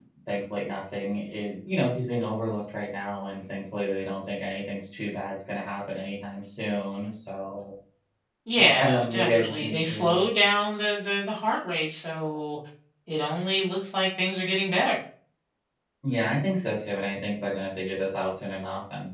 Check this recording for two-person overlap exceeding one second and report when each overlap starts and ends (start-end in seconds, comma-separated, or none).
8.8-10.3